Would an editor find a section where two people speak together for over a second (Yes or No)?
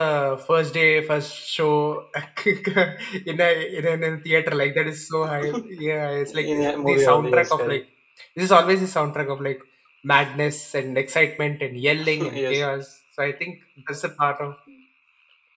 Yes